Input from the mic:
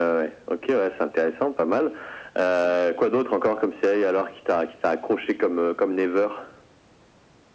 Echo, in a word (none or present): present